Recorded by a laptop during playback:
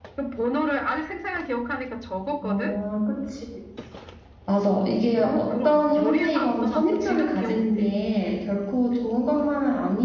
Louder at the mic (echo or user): user